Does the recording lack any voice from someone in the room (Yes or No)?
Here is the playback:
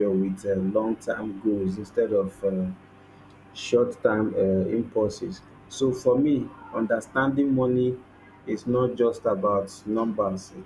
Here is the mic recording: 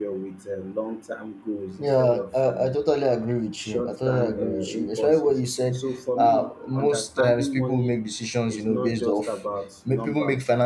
No